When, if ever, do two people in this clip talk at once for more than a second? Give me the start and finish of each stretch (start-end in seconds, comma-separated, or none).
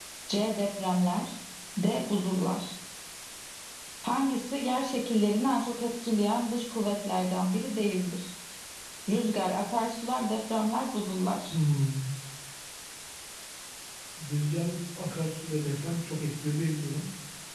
none